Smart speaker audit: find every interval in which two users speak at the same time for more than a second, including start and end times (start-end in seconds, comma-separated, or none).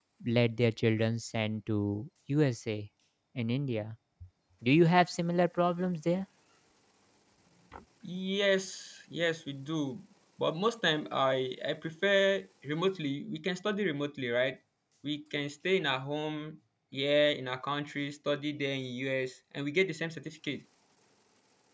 none